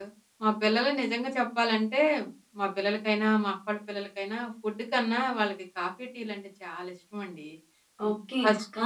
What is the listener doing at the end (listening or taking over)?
taking over